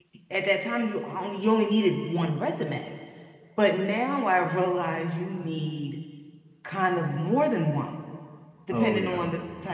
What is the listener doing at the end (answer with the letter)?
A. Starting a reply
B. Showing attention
B